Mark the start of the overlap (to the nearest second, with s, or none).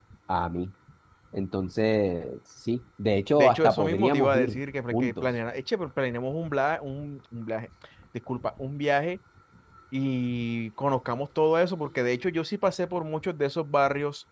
3 s